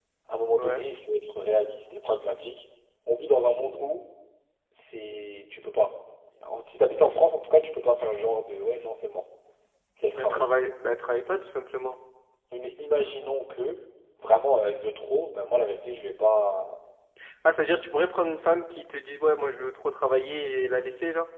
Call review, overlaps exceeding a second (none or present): none